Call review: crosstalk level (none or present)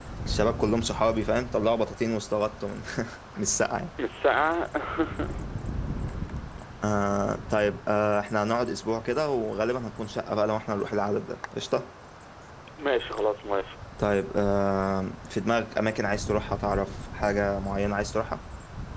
none